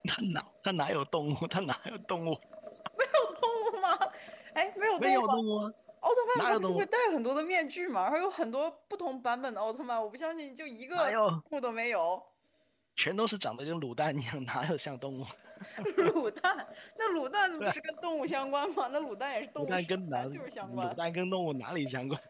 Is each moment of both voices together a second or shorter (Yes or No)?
No